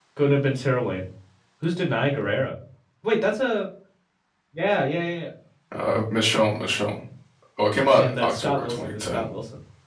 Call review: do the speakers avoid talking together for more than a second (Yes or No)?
No